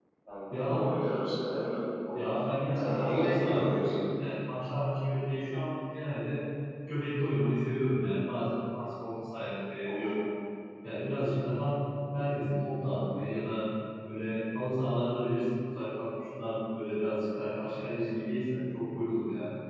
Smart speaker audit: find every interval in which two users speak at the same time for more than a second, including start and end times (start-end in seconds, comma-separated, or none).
2.8-4.0